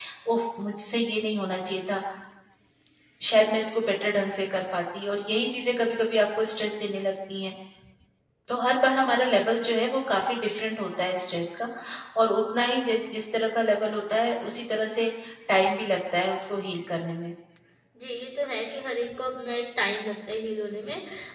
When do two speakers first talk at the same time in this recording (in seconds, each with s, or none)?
none